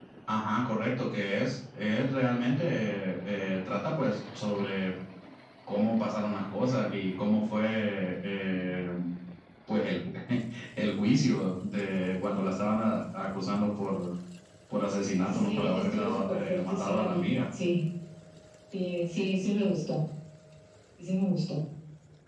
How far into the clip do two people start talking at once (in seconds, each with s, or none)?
15.1 s